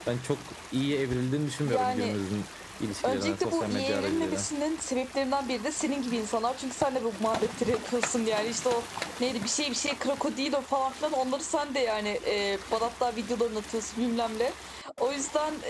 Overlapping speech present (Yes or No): Yes